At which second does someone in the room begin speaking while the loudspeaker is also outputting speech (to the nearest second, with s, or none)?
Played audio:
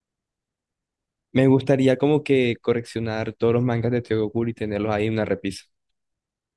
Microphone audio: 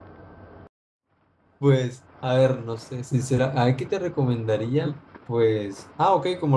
2 s